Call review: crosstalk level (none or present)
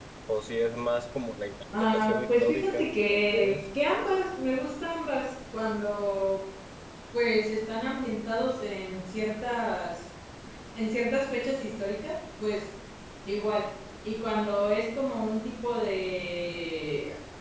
present